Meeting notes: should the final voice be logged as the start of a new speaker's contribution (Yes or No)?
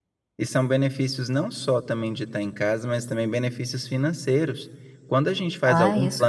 No